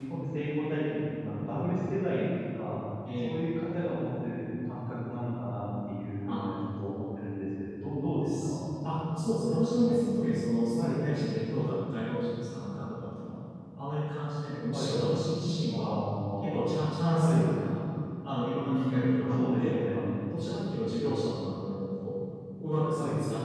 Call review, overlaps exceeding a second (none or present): present